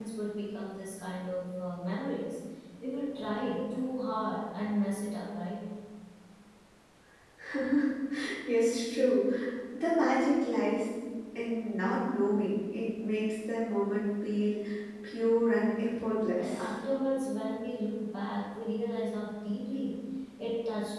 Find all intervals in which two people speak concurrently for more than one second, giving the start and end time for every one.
none

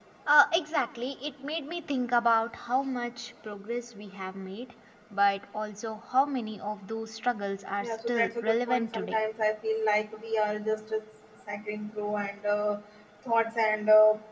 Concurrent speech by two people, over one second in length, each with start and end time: 7.8-9.2

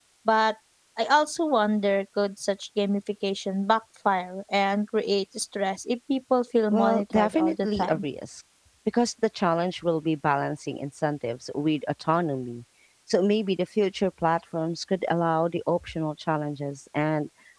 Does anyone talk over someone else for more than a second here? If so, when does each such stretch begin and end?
6.7-8.0

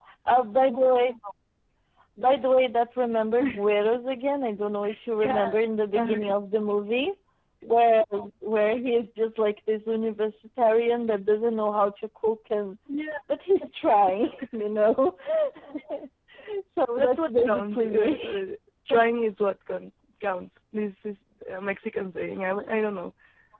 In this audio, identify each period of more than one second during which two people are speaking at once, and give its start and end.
17.0-18.2

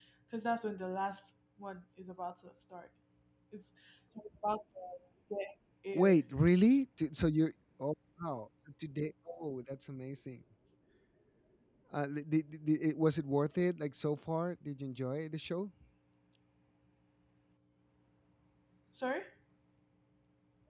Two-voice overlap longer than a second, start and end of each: none

